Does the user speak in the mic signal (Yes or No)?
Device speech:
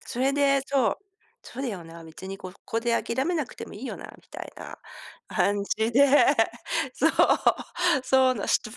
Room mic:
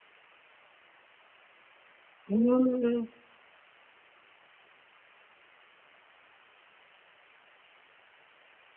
Yes